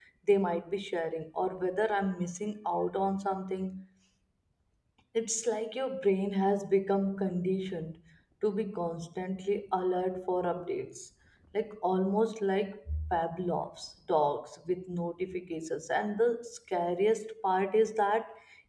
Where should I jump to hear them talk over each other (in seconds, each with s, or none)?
none